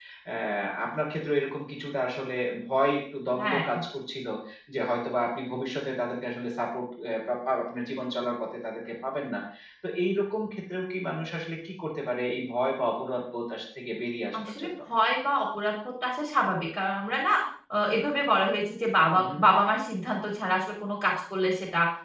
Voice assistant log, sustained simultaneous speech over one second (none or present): none